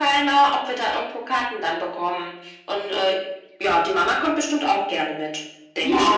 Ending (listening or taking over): taking over